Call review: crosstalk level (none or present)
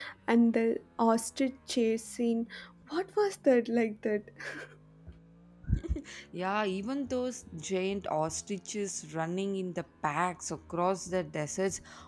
none